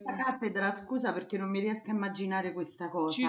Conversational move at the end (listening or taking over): taking over